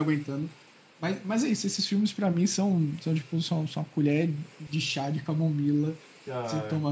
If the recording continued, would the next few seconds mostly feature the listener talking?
No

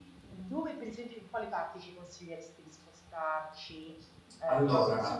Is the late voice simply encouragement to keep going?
Yes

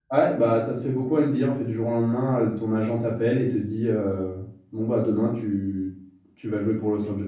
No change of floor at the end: No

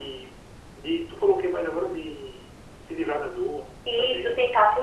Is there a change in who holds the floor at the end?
Yes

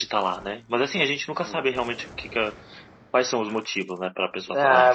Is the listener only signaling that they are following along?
No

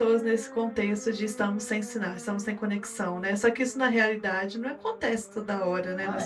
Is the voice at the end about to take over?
Yes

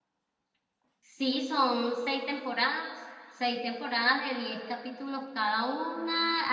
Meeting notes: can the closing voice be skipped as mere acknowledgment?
Yes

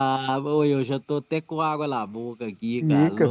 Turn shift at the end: Yes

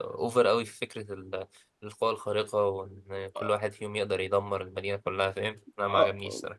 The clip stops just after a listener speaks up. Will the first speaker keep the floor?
No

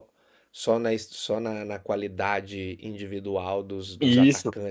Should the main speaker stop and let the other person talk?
Yes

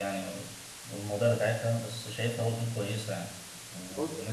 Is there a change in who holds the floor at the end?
No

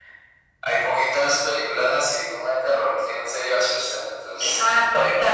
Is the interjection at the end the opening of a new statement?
Yes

